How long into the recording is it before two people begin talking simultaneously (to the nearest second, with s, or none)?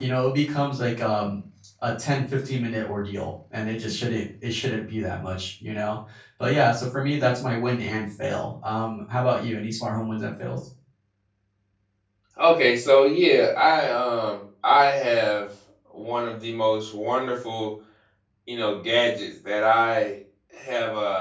none